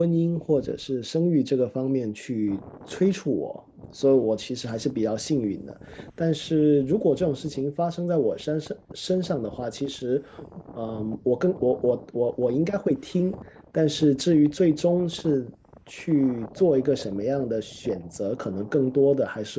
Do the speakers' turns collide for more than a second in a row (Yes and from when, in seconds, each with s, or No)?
No